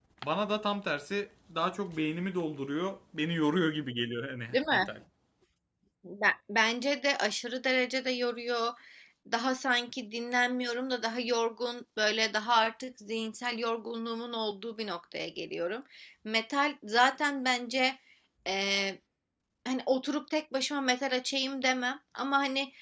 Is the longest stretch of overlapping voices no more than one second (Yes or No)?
Yes